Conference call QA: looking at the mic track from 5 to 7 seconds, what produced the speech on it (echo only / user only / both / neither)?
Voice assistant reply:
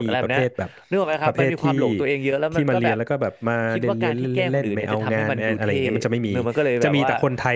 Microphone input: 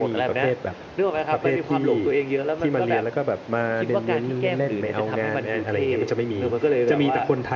echo only